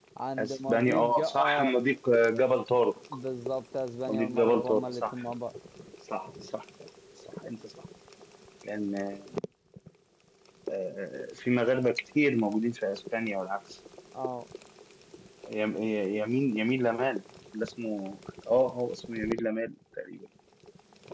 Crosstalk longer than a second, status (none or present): present